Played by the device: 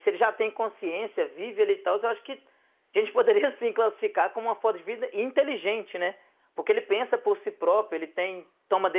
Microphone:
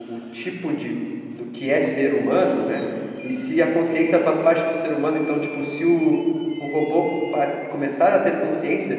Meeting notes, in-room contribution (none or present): present